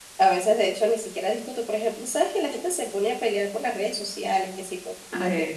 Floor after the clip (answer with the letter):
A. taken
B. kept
B